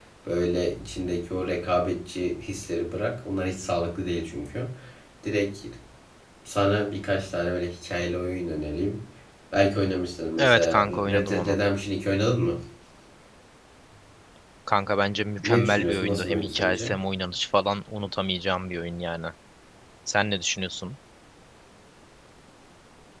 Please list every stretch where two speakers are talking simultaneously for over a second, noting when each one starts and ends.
10.4-11.6, 15.4-16.9

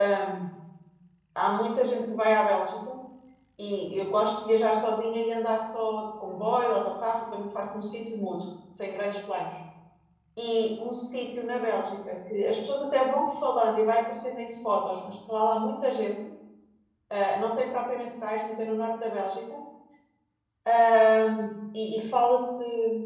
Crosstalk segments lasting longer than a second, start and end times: none

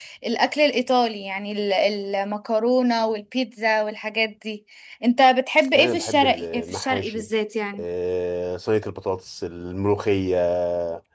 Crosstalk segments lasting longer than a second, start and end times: 5.7-7.3

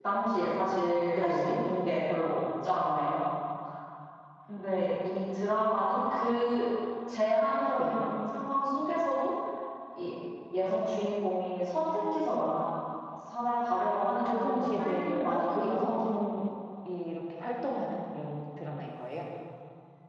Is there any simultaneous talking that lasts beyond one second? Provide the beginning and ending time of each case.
14.2-15.9

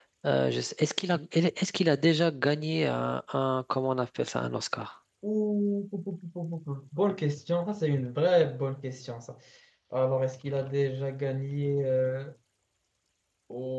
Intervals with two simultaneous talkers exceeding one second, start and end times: none

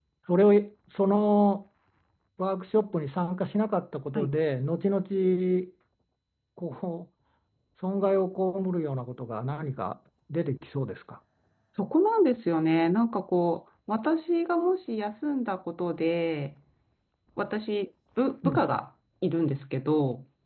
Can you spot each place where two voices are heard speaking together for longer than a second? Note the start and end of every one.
none

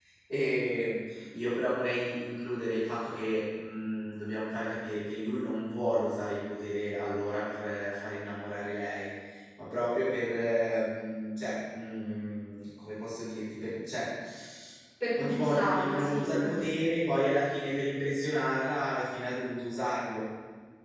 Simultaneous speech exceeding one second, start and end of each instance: 15.2-16.8

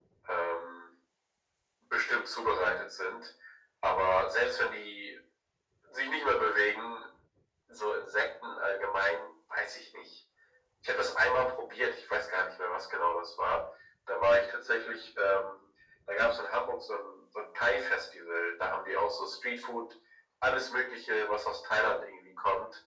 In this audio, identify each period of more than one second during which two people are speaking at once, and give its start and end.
none

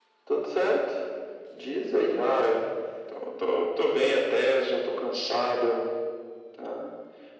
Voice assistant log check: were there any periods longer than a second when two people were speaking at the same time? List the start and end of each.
none

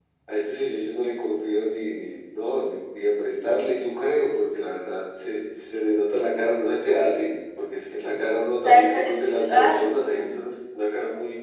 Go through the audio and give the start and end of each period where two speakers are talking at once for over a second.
8.6-10.2

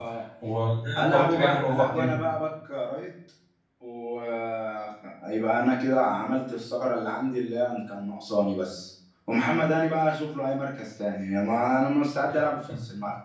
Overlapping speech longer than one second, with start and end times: 1.0-2.2

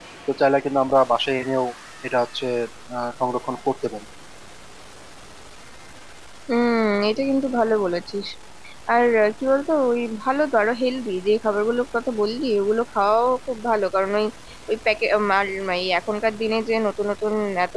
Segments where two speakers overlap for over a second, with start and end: none

